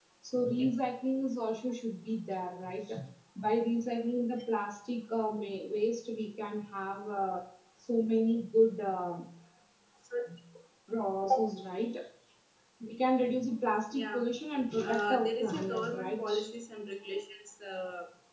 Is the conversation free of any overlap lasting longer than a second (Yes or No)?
No